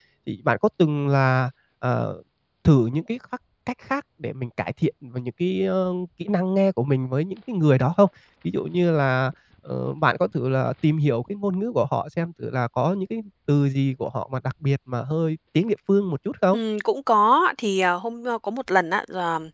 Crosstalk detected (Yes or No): No